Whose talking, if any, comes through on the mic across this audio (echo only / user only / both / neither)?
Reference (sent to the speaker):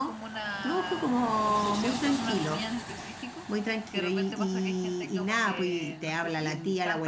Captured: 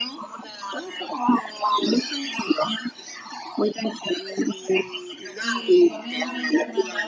both